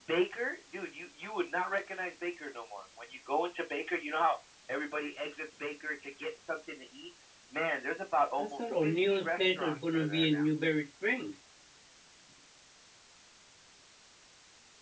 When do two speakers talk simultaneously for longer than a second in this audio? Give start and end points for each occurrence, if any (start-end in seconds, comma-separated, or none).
8.4-10.4